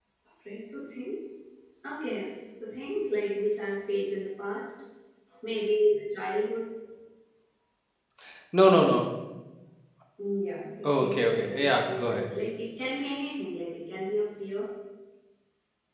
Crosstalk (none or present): present